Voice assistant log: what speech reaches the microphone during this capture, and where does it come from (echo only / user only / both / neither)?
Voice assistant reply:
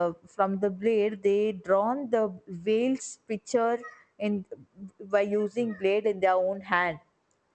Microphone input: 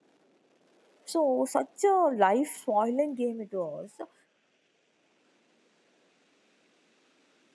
user only